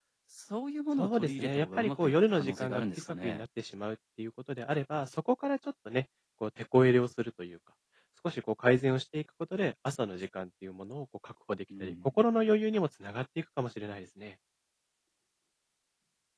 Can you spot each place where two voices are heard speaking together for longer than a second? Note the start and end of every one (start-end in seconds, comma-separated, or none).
1.0-3.4